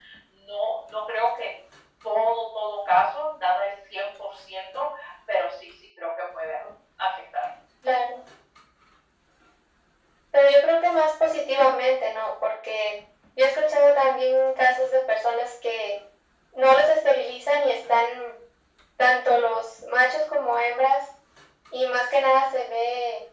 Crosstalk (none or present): none